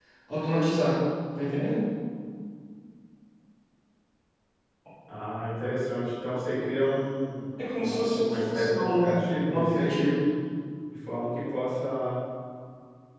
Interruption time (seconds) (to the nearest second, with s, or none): 8 s